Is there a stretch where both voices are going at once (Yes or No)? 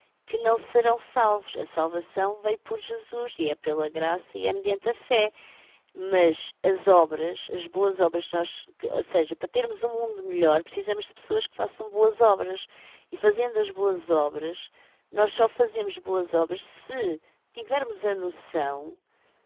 No